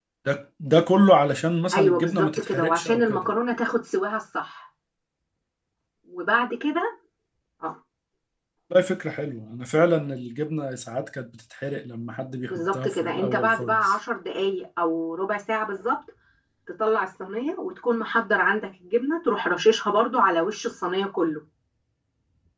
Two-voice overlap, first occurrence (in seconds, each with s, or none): 1.7 s